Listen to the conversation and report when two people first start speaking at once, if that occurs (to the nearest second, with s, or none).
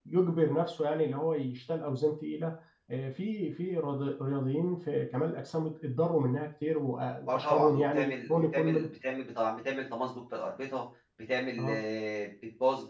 7 s